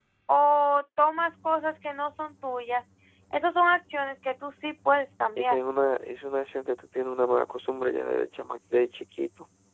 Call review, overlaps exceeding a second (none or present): none